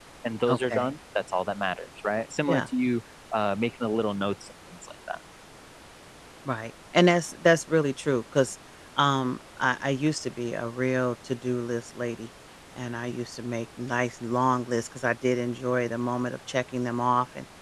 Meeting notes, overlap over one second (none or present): none